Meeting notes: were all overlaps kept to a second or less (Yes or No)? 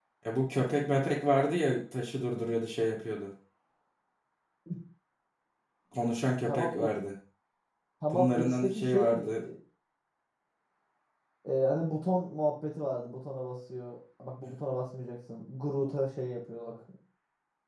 No